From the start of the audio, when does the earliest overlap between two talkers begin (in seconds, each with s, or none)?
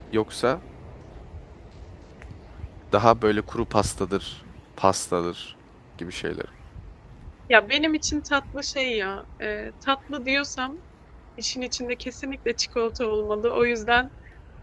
none